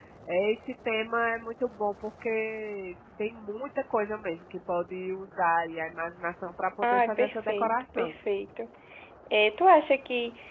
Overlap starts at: 6.8 s

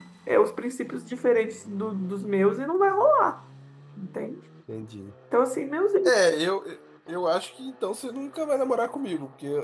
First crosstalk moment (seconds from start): none

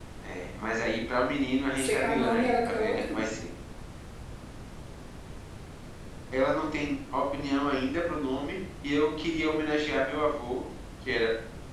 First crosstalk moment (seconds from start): 1.8 s

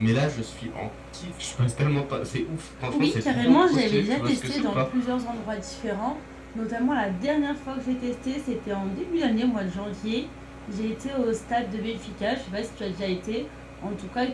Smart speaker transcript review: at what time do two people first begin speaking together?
2.9 s

